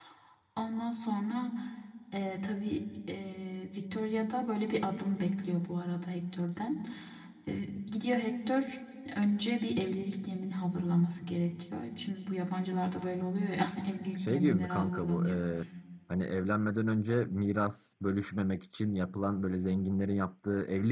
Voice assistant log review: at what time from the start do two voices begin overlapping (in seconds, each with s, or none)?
14.2 s